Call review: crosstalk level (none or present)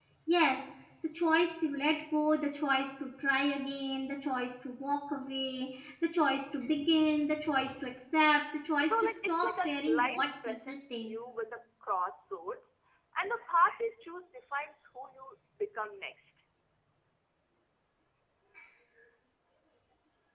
present